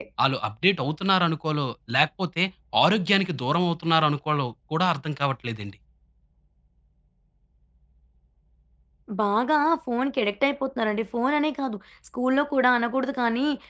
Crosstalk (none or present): none